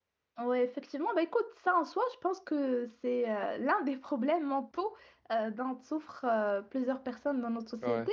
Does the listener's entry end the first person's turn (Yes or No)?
No